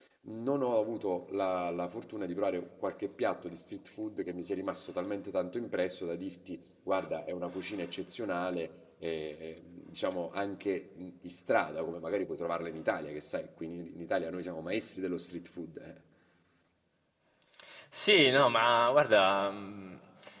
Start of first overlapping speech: none

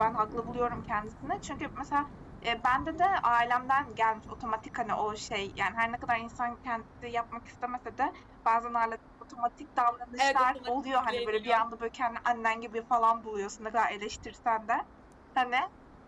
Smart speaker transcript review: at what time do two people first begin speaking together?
10 s

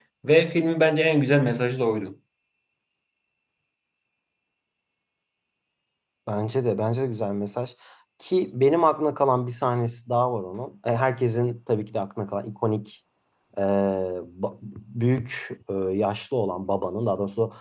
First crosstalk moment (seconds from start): none

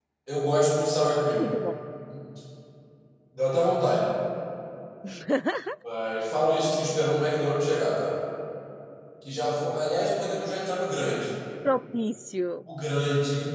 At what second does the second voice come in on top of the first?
none

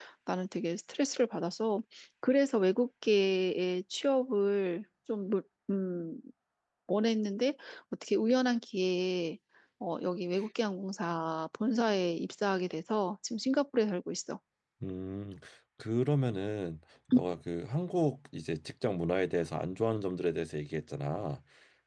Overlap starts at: none

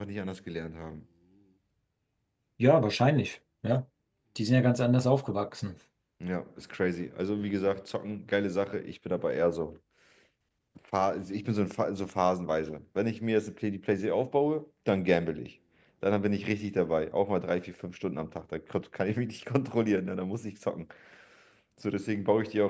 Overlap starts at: none

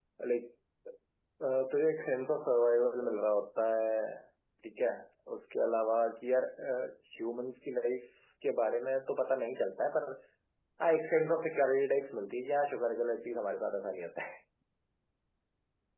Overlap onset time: none

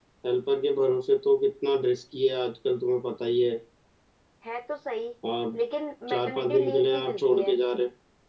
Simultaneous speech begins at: 6 s

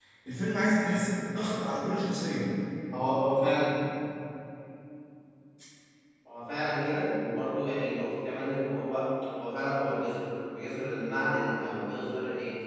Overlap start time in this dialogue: none

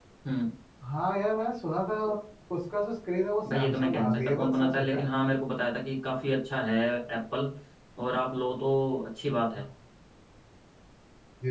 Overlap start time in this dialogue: 3 s

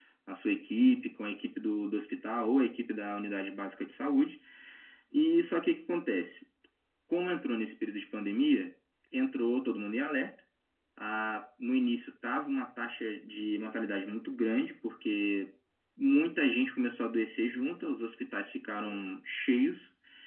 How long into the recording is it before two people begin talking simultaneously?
none

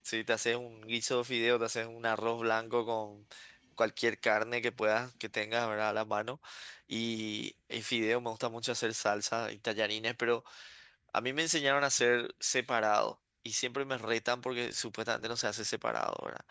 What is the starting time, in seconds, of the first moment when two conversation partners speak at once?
none

